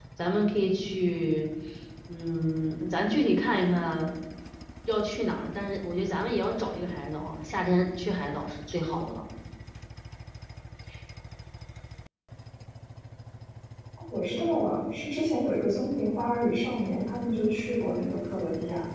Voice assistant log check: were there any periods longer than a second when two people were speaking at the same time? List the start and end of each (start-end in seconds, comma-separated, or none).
none